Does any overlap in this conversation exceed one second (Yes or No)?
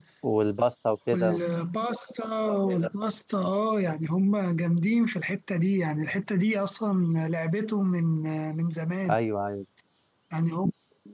No